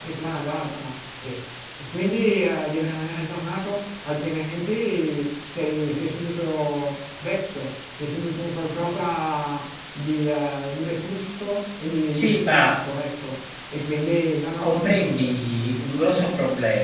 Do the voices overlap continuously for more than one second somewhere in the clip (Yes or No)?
Yes